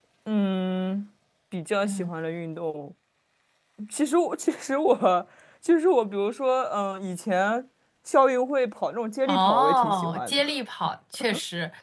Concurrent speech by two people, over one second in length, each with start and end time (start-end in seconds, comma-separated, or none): 9.3-10.5